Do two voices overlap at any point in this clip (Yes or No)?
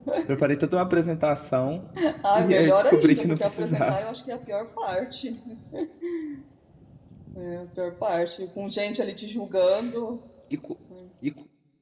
Yes